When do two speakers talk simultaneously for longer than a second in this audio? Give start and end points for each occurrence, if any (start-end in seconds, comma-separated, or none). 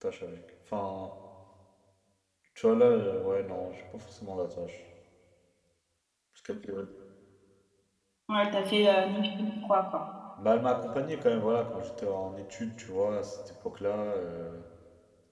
none